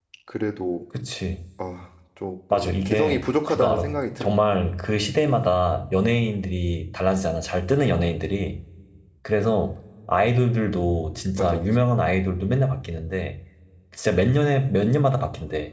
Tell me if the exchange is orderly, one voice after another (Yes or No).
No